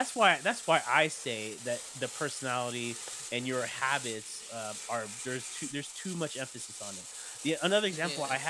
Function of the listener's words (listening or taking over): listening